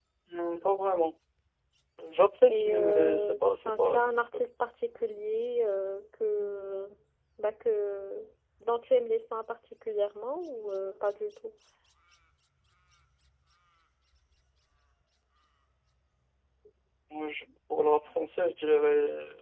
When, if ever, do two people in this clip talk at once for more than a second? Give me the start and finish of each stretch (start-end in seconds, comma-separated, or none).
2.5-4.2